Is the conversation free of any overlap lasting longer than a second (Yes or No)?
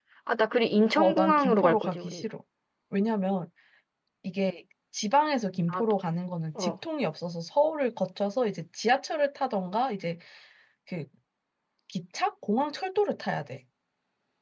No